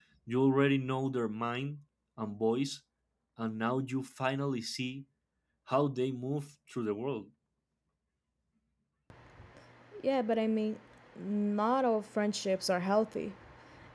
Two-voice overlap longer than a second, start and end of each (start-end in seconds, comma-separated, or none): none